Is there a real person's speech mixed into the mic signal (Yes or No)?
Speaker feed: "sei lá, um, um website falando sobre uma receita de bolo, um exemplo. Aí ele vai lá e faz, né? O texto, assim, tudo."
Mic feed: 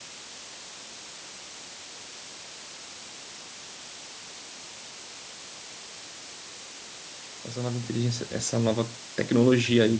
Yes